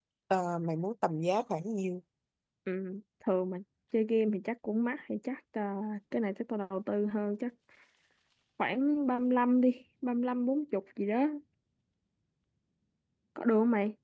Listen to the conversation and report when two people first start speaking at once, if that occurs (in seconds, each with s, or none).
none